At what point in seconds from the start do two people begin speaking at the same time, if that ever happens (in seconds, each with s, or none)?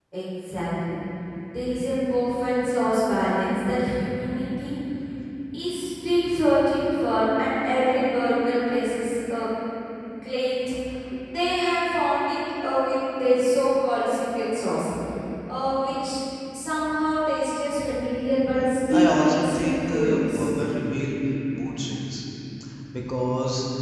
18.9 s